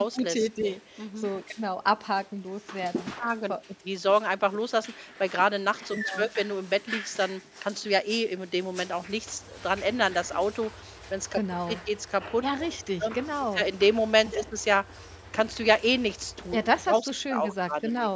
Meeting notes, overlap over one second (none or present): present